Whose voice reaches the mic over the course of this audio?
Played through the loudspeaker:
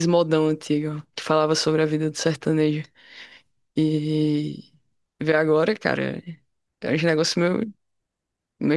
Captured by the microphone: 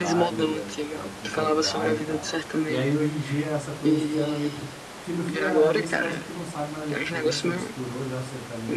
both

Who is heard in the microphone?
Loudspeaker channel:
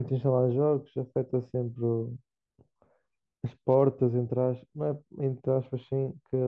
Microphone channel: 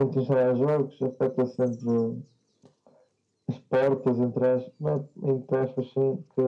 echo only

